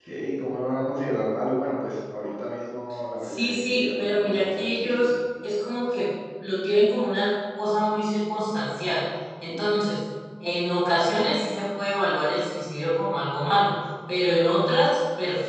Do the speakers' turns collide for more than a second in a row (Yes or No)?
Yes